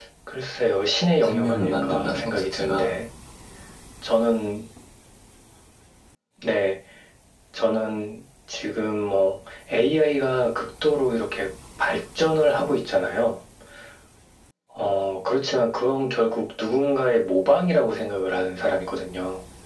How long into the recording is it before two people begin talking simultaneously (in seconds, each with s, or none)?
1.2 s